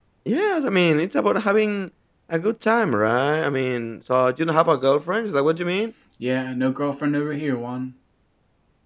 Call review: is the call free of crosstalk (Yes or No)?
Yes